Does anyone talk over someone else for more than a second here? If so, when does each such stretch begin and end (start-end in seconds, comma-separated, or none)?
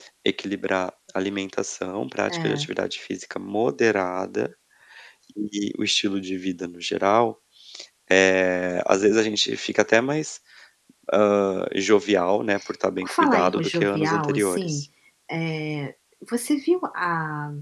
13.0-14.8